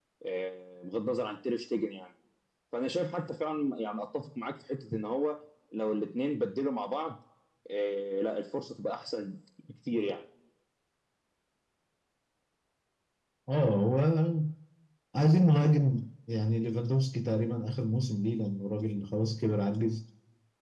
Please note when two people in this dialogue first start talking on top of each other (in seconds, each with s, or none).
none